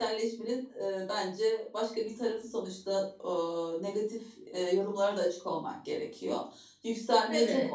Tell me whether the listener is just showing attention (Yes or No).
Yes